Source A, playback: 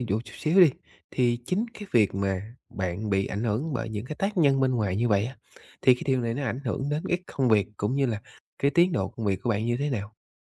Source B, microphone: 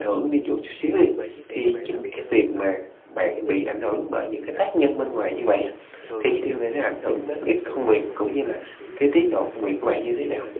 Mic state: both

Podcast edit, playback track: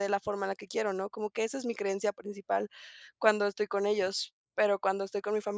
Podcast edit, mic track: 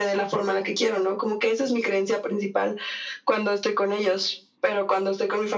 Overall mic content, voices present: echo only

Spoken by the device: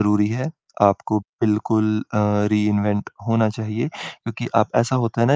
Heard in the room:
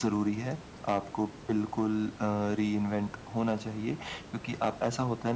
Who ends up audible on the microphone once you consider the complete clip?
echo only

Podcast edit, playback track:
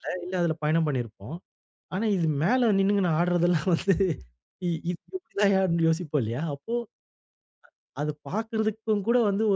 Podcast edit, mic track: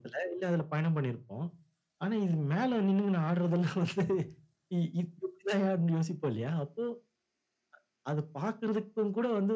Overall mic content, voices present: echo only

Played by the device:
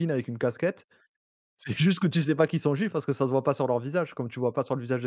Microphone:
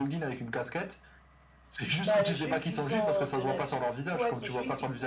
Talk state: both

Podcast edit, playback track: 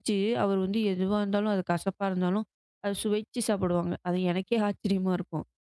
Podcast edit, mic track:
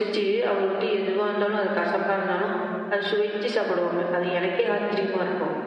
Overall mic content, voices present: echo only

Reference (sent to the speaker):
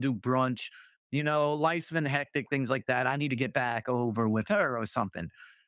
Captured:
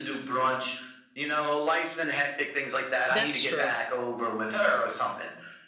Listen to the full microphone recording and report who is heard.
both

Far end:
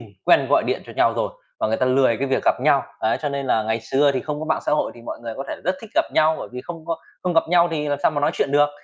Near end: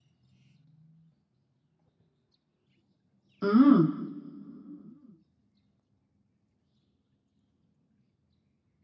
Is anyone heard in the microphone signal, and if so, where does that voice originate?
user only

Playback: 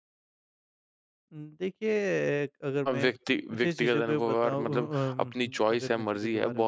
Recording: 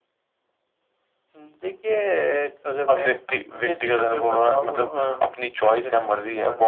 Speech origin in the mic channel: echo only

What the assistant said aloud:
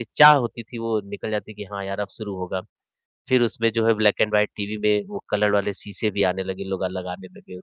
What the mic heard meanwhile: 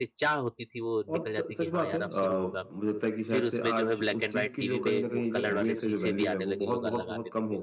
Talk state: both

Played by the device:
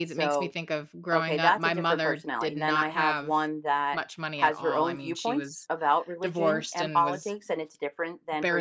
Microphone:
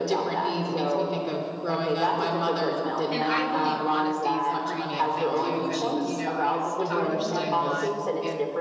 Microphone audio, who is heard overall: both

